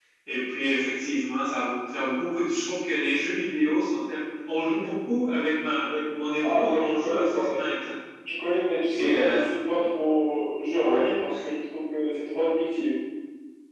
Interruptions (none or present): present